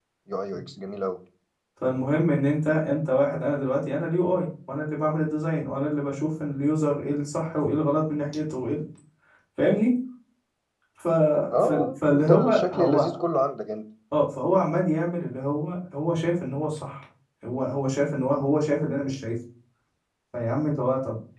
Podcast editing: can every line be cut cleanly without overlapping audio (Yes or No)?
No